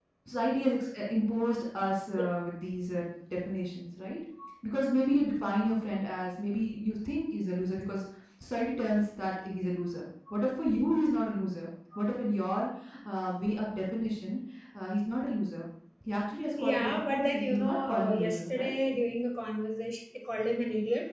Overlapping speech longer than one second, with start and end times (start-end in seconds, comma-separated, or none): 16.7-18.7